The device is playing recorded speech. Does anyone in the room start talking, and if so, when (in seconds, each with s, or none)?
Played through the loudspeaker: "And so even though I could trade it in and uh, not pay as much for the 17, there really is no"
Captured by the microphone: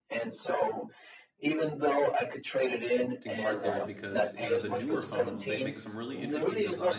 3.2 s